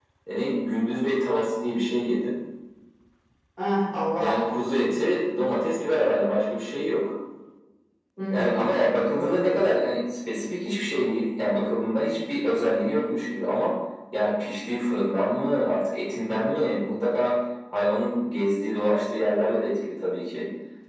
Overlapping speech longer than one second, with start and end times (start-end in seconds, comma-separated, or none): none